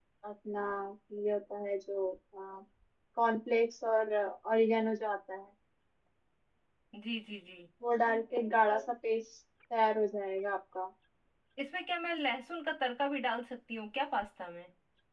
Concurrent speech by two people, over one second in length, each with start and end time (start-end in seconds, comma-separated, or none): none